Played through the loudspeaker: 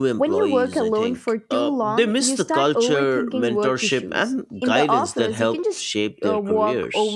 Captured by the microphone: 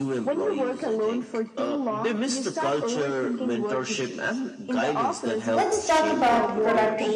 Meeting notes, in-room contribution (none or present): present